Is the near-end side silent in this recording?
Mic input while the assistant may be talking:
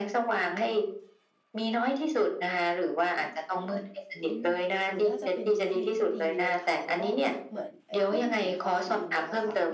No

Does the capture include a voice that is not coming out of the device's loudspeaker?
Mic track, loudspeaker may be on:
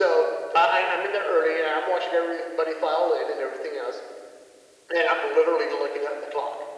No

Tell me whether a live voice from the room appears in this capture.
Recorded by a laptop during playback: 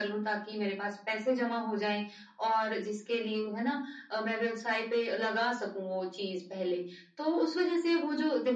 No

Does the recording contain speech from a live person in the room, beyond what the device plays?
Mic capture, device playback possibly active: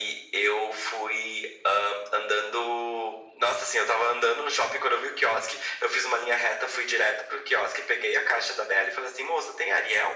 No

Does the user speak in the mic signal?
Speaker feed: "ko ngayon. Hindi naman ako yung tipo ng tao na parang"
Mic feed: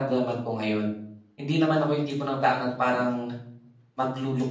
No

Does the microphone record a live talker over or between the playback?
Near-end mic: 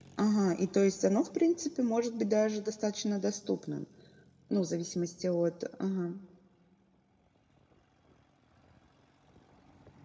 Yes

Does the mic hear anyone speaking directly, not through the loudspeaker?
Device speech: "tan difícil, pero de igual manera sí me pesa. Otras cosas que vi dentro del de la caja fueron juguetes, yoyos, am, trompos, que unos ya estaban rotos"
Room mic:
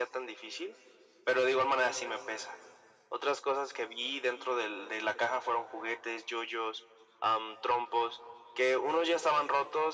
No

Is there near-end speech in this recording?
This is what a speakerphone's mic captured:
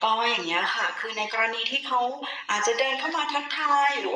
No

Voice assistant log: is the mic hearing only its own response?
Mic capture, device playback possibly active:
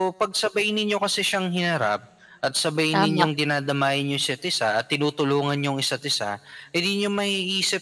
No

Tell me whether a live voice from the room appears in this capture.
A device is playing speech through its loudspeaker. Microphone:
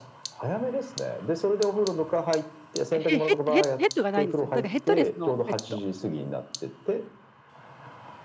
Yes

